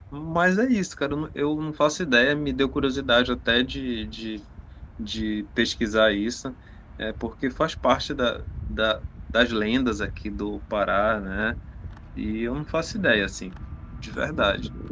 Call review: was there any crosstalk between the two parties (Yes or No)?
No